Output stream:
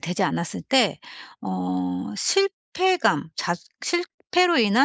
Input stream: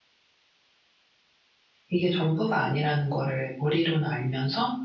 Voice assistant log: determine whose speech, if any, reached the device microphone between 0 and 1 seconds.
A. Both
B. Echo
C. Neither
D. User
C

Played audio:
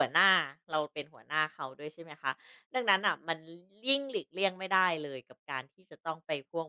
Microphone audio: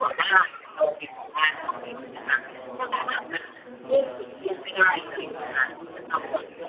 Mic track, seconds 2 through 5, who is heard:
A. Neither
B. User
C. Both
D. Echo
C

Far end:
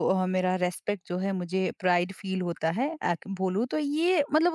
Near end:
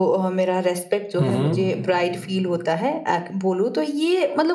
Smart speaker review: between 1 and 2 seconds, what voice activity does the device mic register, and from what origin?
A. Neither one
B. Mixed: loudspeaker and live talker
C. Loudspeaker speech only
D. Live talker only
B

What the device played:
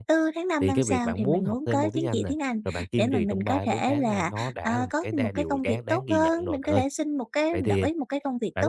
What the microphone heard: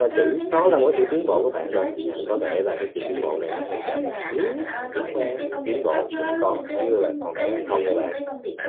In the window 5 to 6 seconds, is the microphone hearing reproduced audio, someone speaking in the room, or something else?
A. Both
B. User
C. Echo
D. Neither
A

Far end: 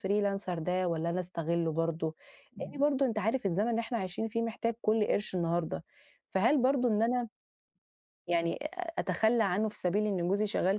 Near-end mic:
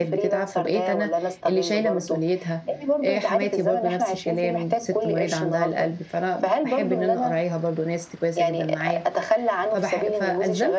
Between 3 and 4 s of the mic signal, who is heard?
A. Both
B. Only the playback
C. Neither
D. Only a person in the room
A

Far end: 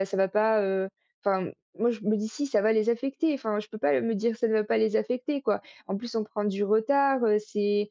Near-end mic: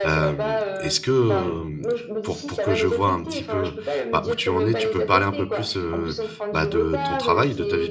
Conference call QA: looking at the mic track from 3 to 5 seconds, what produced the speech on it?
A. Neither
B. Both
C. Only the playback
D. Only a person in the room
B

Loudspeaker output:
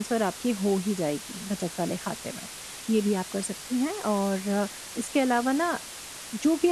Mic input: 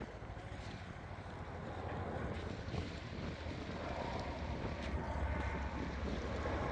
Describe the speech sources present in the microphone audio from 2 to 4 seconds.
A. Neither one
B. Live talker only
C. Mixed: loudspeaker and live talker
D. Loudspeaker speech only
A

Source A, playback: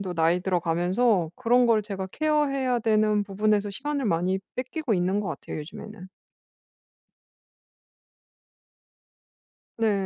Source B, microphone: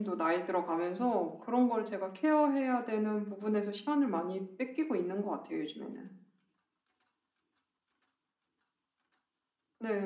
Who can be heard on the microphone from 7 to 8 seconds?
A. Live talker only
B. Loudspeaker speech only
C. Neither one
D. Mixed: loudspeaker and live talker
C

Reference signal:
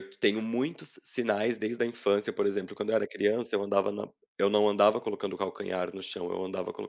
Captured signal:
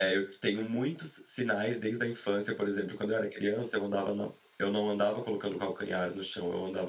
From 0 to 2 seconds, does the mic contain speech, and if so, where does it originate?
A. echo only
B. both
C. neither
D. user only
A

